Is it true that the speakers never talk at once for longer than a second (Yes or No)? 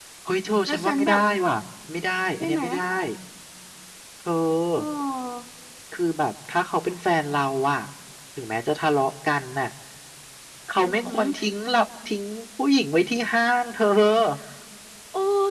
Yes